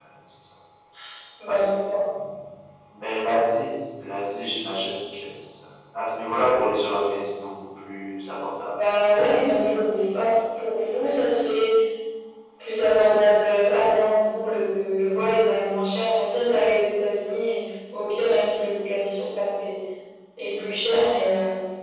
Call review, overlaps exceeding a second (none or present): none